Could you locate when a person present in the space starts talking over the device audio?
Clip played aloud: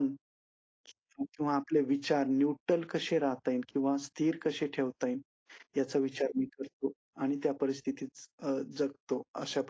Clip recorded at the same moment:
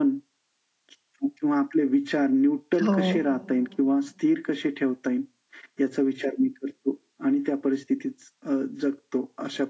2.8 s

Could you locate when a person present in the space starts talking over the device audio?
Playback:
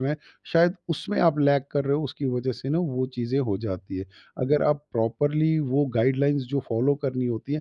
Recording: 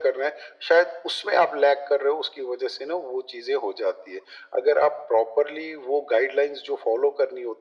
none

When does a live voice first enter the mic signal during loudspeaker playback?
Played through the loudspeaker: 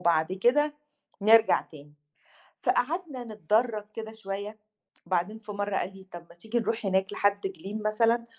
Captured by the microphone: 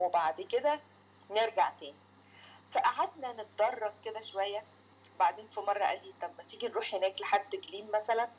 none

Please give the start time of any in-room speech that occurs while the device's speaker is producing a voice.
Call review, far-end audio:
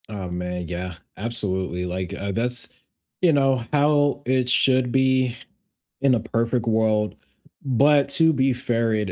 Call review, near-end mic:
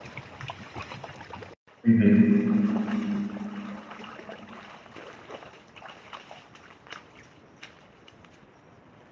1.8 s

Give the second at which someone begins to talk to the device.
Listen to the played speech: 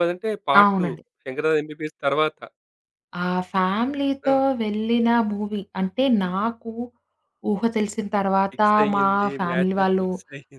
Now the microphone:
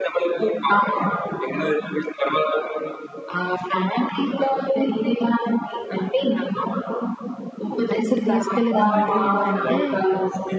7.9 s

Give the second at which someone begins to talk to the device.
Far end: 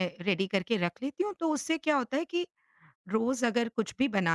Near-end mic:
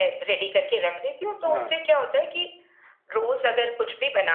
1.4 s

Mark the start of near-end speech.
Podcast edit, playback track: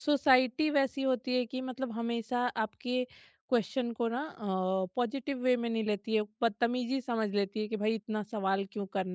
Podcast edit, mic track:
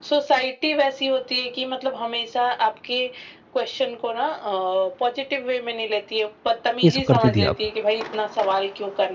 6.8 s

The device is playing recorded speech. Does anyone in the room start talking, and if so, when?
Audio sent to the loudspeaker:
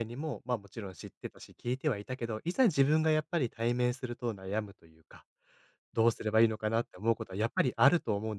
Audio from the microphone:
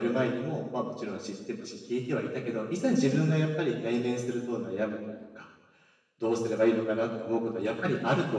none

